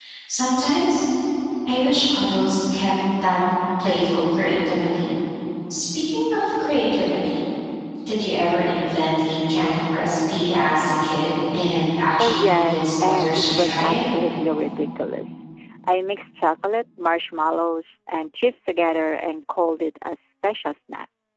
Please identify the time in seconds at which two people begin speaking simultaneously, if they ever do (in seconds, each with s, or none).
12.2 s